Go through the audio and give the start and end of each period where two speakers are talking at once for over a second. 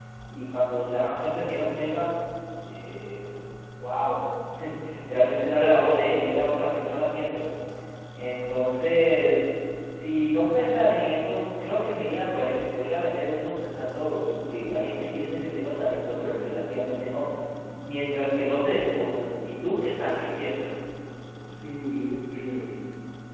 none

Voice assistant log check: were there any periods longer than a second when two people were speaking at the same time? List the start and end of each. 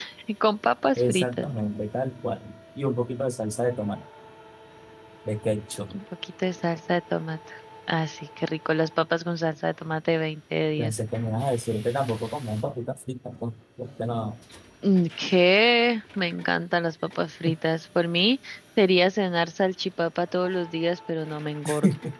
none

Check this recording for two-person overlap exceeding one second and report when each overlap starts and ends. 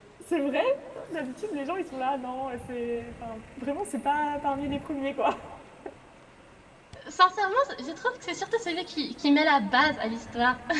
none

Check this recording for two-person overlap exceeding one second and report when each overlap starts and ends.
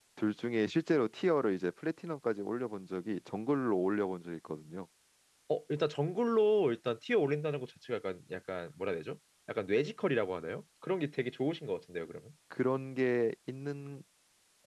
none

